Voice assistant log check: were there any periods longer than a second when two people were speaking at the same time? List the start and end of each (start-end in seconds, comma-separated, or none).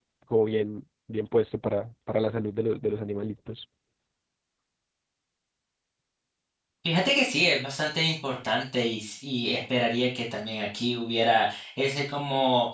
none